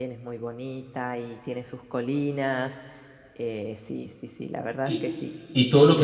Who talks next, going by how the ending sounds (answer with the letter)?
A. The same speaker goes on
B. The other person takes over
B